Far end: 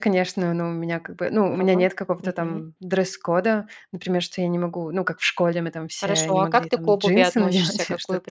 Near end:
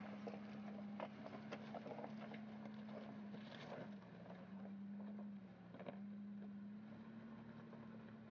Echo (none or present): none